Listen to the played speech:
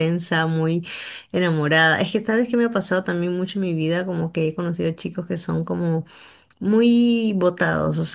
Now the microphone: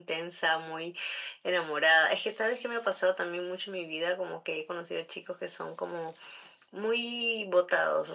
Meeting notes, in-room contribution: none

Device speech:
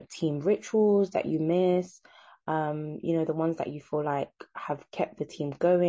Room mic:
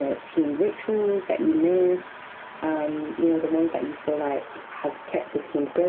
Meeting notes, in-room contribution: none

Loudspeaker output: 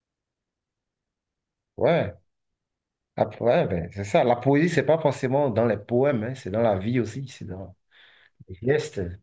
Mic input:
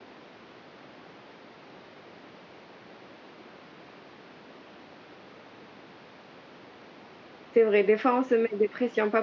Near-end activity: present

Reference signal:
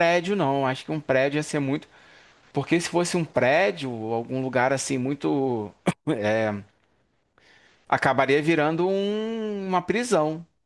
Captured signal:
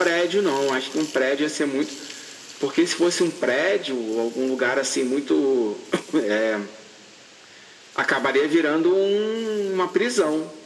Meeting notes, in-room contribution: none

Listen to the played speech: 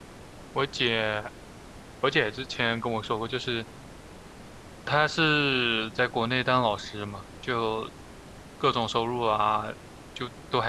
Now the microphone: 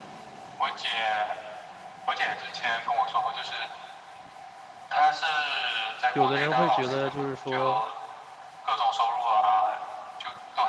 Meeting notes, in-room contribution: present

